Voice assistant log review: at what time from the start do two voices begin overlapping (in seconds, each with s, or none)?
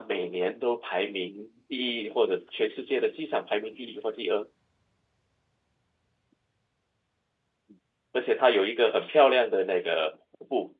none